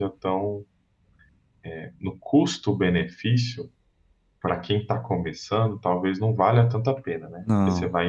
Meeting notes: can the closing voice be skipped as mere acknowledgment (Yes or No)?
Yes